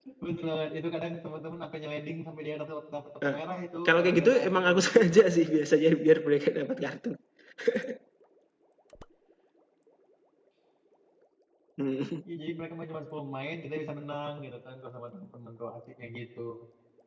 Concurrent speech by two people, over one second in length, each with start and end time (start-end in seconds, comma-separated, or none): 3.8-5.2